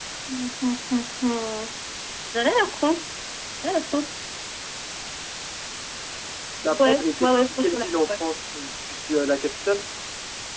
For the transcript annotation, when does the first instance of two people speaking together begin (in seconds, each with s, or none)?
6.8 s